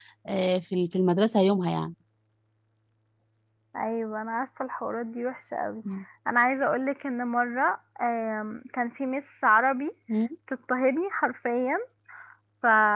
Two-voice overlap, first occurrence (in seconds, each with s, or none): none